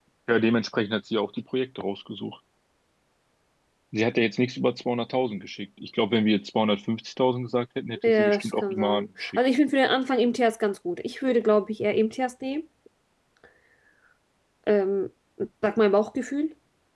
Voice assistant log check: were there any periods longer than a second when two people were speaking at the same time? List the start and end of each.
8.1-9.4

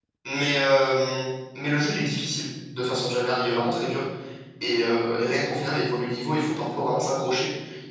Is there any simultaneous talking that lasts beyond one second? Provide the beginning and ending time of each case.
none

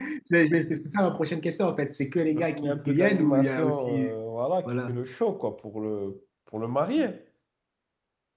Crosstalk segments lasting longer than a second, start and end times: 2.3-4.1

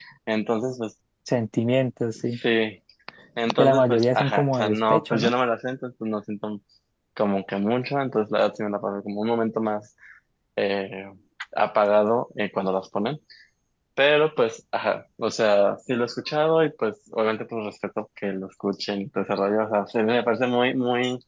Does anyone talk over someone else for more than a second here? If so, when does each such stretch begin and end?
3.6-5.3

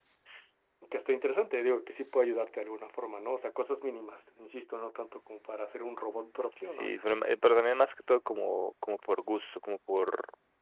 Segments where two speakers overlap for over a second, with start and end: none

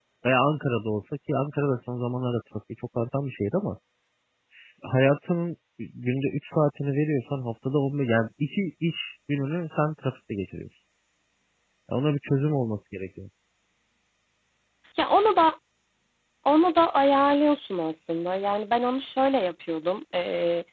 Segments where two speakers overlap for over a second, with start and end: none

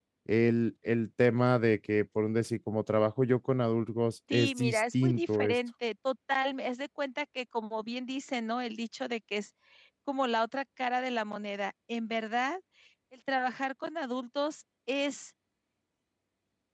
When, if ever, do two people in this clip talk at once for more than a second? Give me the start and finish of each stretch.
4.3-5.5

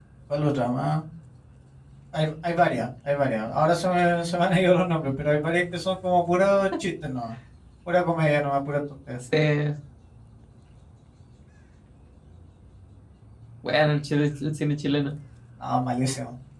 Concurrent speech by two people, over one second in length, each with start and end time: none

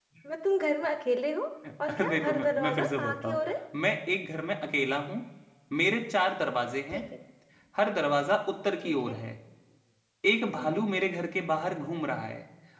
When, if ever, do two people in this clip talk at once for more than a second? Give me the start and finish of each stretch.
1.9-3.4

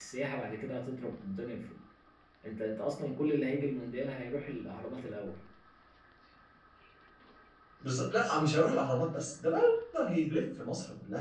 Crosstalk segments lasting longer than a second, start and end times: none

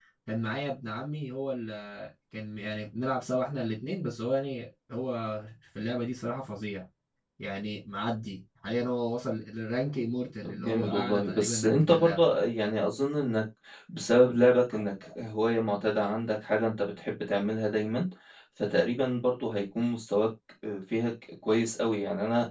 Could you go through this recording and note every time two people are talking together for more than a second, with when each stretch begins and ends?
10.4-12.3

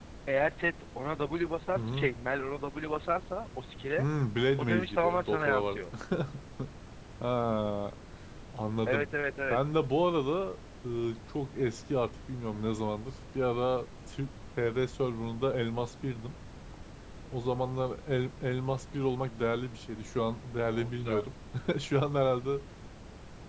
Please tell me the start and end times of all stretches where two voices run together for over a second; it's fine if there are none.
4.6-5.9

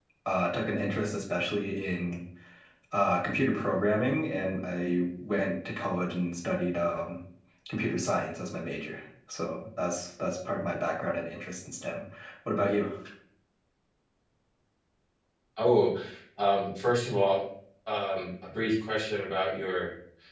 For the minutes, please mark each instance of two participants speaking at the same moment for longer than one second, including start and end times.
none

